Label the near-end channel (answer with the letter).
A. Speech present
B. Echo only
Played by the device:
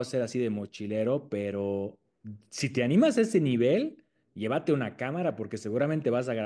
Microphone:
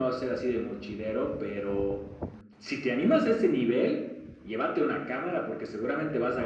B